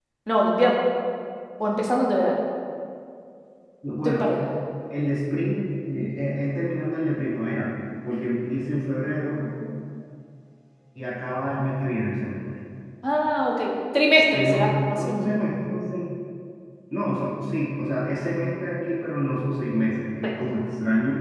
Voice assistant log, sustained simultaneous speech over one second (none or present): none